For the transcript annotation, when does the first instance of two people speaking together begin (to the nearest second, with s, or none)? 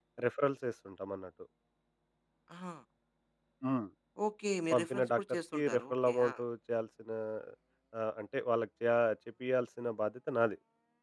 5 s